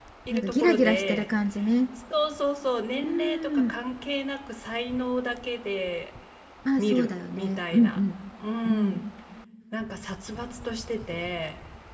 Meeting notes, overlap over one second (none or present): present